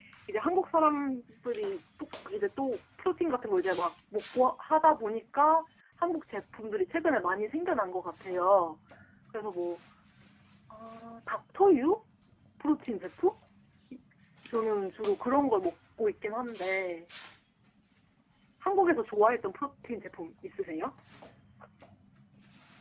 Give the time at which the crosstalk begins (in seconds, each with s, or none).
none